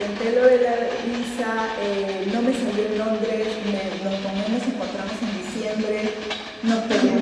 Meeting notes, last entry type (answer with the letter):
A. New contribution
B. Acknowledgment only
B